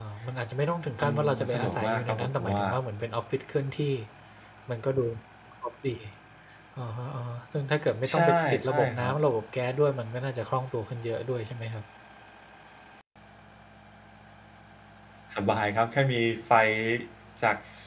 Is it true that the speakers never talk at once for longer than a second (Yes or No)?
No